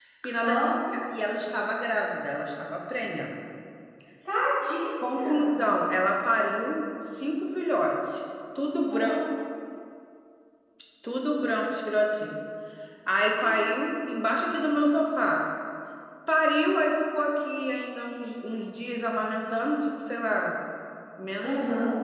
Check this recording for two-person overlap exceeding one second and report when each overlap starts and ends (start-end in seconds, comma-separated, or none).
none